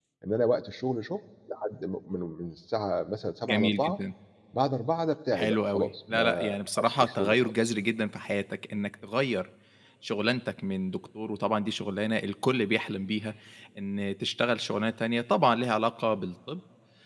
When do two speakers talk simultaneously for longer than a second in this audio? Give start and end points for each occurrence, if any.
5.3-7.7

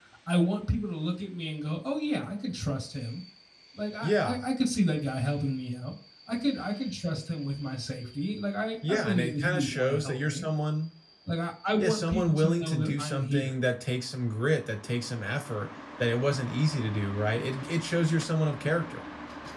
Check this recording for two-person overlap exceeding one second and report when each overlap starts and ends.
8.9-10.4, 11.8-13.5

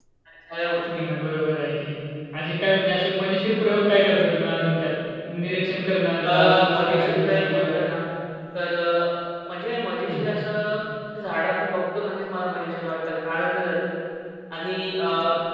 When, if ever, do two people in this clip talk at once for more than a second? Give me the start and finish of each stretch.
6.2-7.7

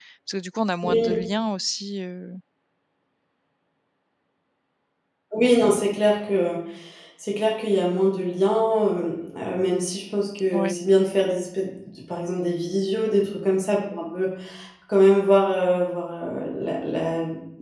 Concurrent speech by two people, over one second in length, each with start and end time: none

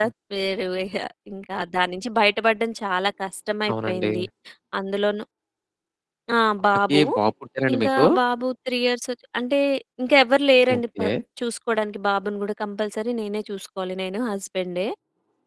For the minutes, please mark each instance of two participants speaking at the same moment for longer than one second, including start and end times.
none

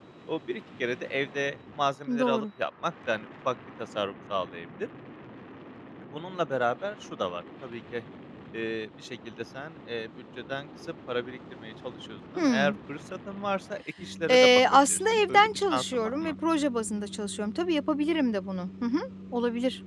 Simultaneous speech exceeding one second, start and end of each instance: 14.3-16.3

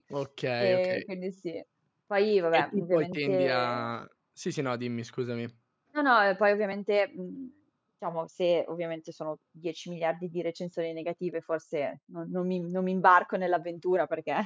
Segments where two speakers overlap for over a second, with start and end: 2.5-3.9

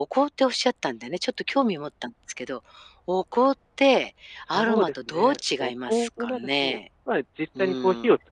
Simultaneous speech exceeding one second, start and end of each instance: 4.5-6.8

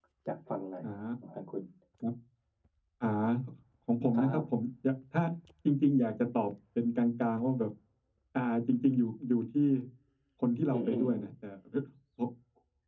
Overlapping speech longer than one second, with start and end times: none

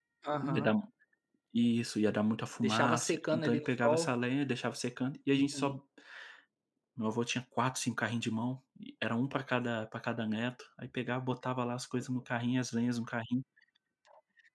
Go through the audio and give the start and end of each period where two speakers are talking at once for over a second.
2.6-4.1

